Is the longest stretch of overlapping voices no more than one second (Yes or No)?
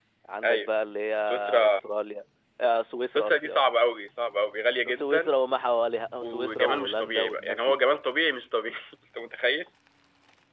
No